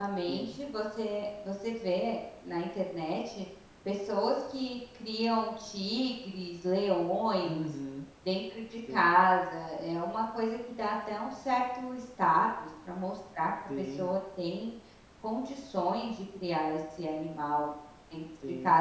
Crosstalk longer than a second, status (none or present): none